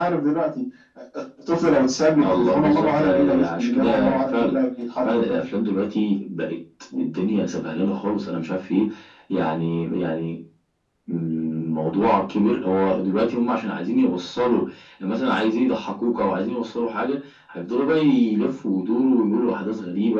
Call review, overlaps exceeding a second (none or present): present